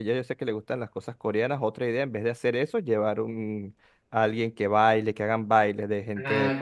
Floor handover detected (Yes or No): Yes